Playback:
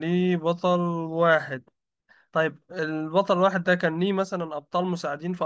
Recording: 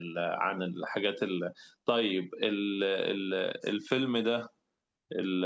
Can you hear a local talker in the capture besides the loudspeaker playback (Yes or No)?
Yes